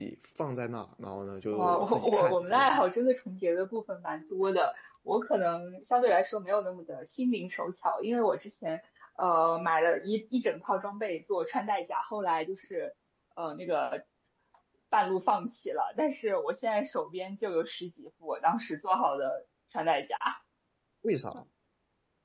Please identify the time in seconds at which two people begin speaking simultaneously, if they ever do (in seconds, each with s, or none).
1.4 s